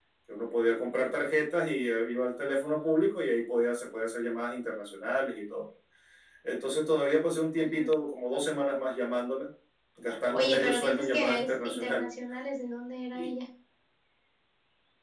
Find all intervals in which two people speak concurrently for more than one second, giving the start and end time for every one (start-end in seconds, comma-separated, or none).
10.3-12.1